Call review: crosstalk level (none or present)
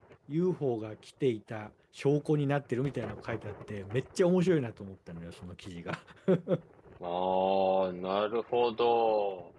none